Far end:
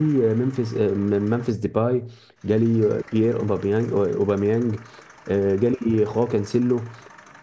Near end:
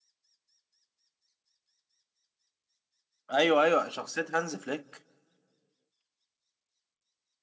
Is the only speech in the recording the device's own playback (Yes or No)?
No